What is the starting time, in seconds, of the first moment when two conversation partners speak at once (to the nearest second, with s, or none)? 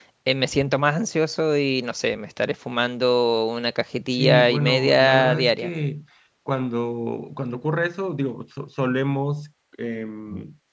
4 s